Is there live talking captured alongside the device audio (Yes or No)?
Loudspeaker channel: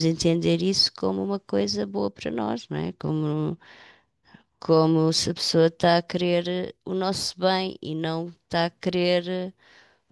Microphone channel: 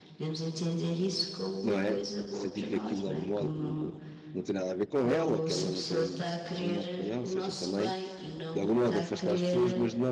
Yes